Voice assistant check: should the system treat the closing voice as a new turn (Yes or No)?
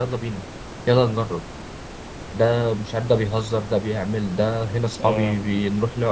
No